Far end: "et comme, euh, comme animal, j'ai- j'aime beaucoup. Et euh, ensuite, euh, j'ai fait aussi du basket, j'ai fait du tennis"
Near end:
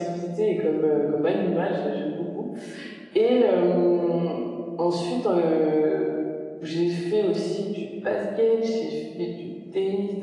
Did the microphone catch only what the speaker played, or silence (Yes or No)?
Yes